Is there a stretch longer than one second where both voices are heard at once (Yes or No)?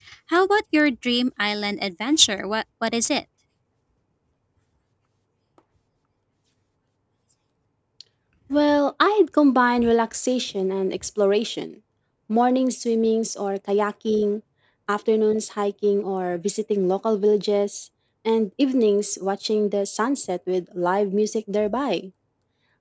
No